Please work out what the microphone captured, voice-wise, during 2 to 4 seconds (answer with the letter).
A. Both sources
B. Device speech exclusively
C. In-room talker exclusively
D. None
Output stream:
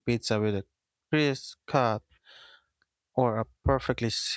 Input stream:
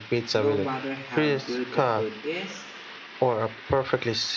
A